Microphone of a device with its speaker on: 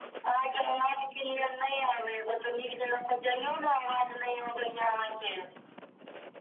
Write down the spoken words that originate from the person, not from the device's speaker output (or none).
none